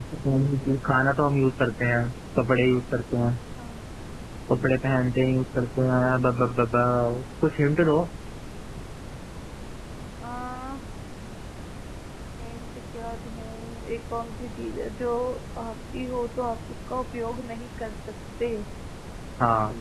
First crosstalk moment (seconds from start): none

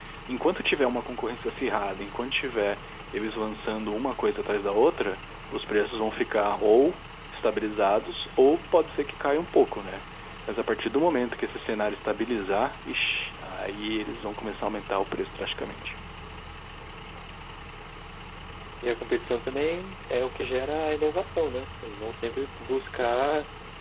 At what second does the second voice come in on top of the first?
none

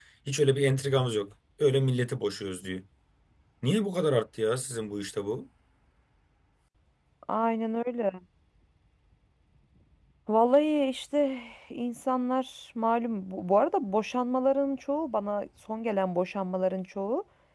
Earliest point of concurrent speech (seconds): none

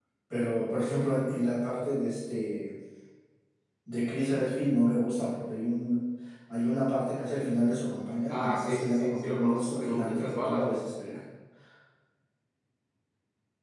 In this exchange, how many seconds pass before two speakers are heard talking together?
8.3 s

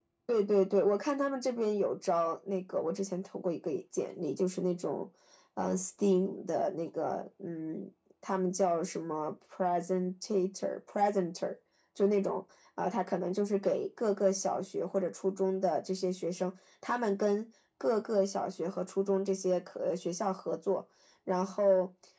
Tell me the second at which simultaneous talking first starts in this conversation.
none

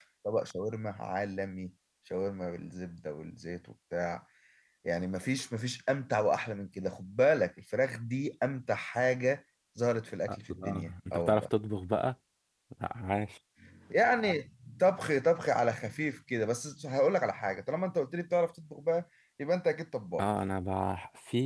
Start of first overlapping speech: 10.3 s

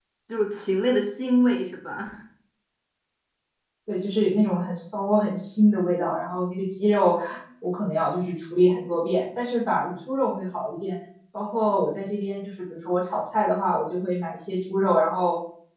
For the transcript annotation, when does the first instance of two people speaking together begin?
none

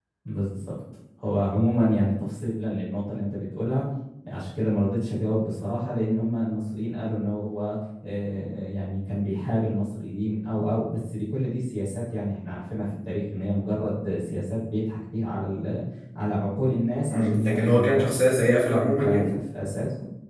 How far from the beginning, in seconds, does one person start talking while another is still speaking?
17.1 s

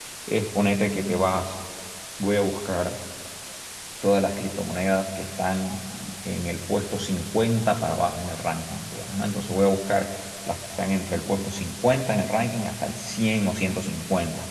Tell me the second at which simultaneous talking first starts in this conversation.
none

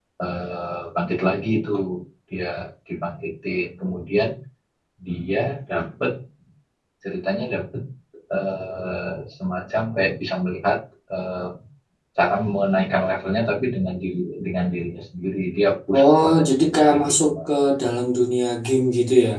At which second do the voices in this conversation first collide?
15.9 s

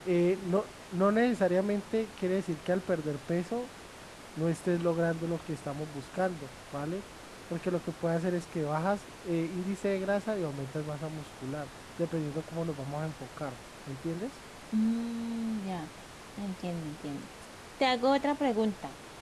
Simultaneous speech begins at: none

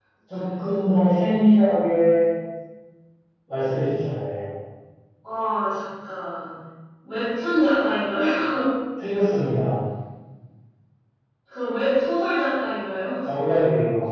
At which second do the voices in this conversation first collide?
none

